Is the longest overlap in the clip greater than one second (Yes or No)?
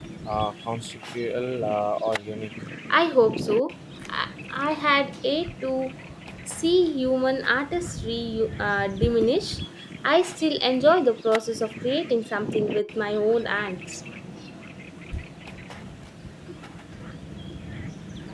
No